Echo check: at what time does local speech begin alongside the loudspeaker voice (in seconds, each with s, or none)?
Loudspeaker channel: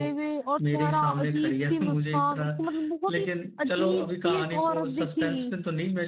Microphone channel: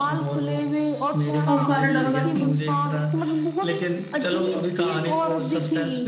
1.5 s